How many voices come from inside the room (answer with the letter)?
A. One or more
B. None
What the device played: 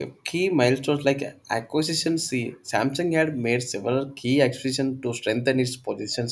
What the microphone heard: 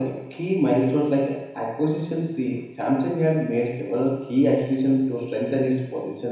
B